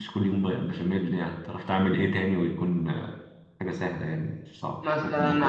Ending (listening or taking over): taking over